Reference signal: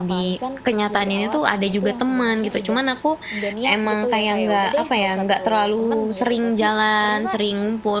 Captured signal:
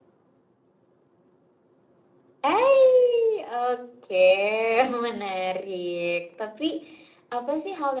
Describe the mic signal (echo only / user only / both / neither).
user only